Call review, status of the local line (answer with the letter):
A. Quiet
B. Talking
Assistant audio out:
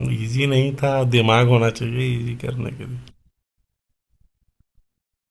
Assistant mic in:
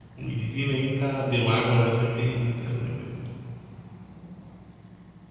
A